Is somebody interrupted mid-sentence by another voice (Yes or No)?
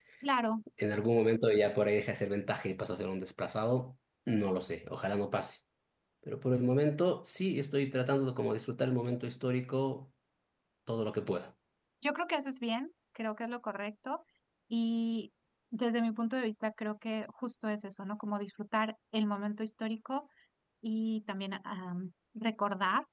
No